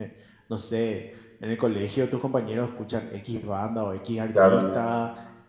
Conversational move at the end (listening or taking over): listening